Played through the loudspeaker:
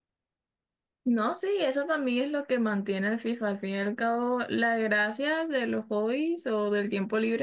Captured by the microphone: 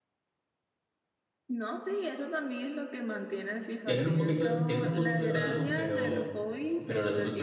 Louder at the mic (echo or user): user